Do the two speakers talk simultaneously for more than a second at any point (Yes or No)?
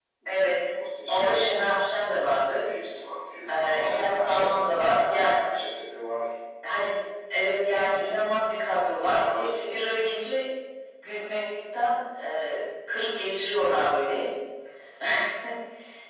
Yes